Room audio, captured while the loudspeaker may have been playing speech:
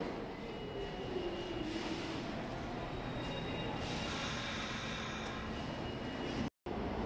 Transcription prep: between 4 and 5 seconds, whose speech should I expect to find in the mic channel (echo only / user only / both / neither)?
neither